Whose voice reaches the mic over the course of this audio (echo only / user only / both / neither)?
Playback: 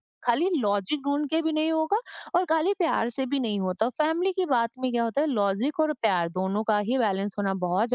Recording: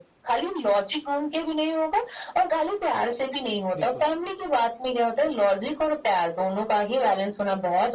both